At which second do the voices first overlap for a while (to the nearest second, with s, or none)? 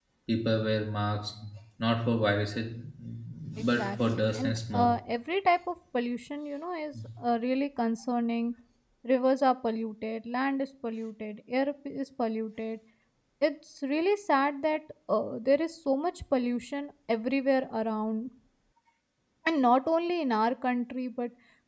4 s